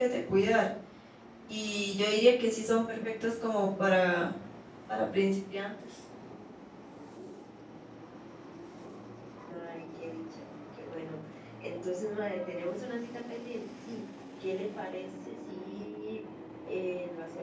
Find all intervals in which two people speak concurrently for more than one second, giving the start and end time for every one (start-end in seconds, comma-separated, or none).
none